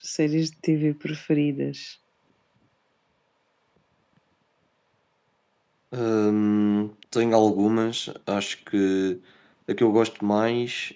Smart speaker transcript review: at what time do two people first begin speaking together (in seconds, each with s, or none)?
none